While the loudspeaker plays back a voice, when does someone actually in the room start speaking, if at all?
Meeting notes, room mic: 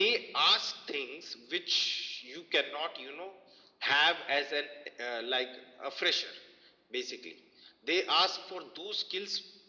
none

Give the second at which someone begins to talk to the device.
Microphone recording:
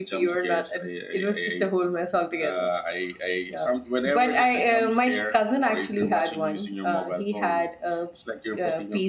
none

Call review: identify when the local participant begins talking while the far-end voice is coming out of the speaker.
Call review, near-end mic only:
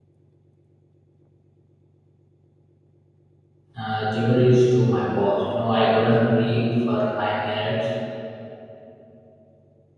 4 s

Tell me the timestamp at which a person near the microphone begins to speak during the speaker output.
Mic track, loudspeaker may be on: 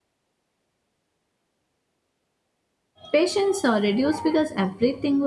3 s

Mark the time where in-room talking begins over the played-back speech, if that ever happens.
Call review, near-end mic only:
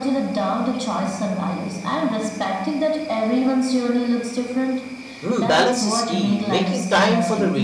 5 s

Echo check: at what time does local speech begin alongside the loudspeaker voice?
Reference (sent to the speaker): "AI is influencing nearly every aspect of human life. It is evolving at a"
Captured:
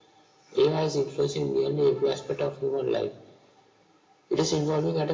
none

